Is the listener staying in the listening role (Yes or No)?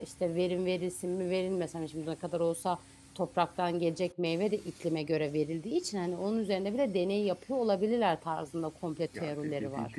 No